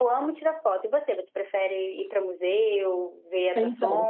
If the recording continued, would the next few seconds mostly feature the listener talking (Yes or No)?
Yes